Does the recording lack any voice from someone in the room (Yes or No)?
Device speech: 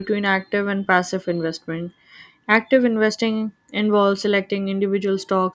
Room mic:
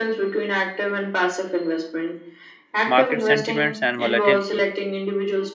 No